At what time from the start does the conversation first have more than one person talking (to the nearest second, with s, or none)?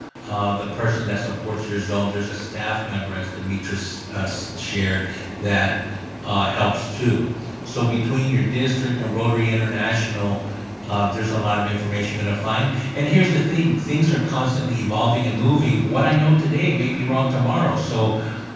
none